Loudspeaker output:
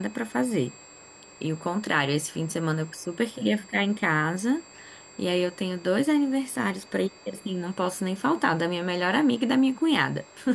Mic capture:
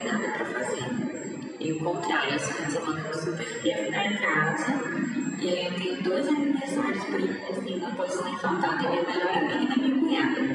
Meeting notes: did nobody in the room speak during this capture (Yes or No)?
Yes